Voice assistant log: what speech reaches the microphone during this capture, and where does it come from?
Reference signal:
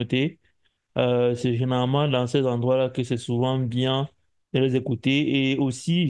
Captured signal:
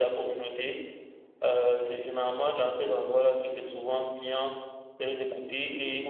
echo only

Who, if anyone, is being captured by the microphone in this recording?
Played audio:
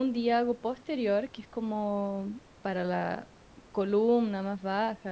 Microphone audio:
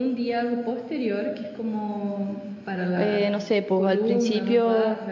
both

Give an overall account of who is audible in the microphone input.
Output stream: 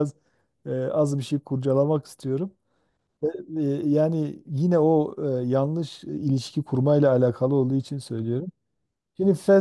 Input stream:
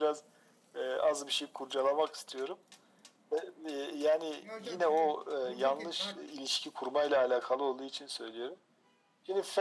both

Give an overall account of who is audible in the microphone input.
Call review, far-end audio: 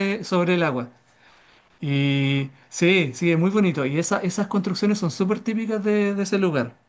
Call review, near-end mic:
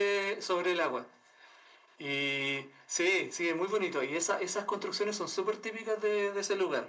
echo only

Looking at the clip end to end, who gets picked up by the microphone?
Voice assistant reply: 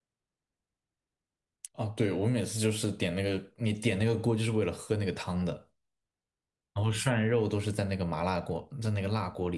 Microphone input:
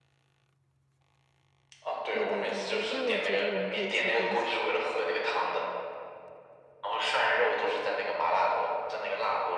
both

